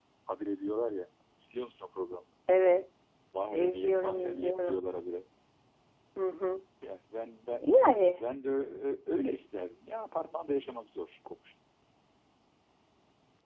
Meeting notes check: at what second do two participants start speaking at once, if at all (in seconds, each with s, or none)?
3.5 s